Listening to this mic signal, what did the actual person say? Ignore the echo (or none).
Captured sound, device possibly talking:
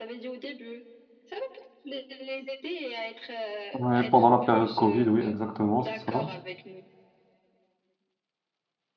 Ouais, pendant la période Covid, oui, exactement, c'est ça.